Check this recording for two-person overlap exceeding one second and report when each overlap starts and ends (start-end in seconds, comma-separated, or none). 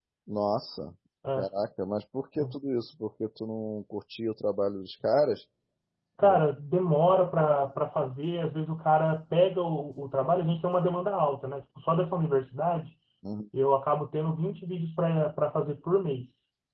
none